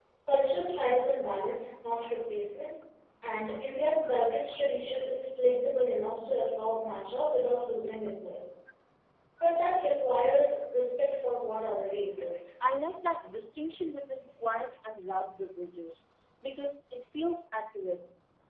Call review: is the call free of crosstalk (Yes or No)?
Yes